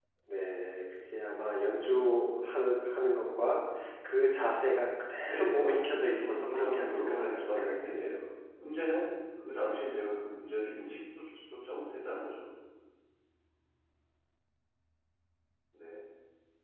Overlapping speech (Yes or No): Yes